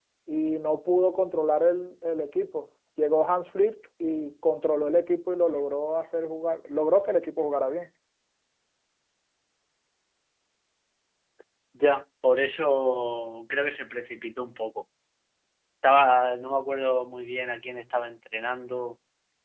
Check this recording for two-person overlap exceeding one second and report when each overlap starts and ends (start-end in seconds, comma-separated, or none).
none